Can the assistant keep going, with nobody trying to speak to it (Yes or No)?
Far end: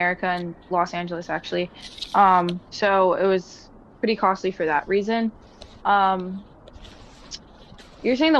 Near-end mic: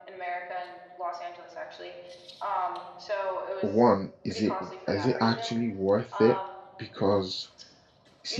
No